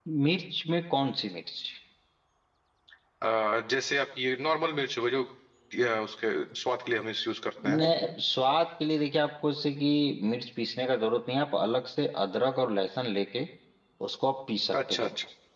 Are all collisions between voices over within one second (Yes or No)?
Yes